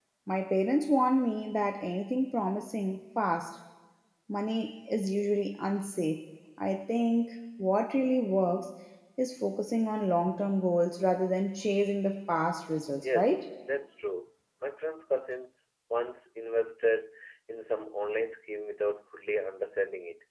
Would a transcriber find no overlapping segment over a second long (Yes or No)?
Yes